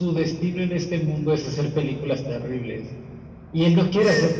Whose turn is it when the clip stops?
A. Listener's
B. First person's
B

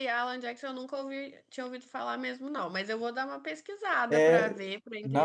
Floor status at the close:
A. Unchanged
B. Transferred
B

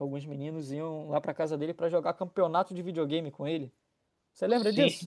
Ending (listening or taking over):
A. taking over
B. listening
A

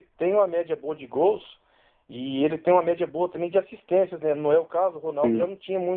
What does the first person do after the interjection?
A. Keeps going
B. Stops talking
A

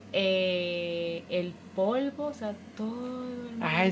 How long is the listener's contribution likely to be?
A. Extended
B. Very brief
A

